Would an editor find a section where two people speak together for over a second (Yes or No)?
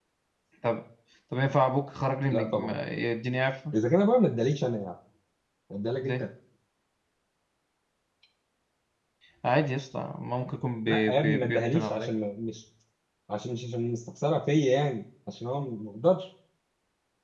Yes